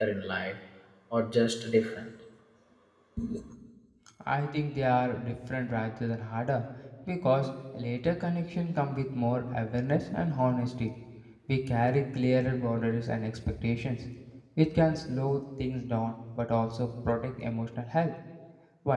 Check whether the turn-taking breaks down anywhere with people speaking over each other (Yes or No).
No